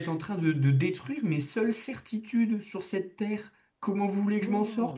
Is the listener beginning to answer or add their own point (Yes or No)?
Yes